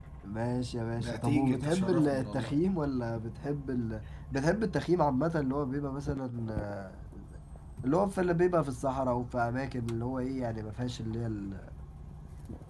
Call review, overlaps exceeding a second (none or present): present